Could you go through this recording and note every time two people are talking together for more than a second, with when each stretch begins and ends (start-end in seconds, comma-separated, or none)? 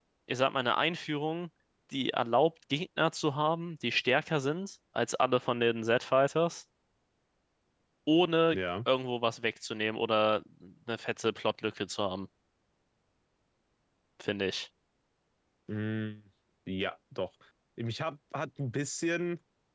none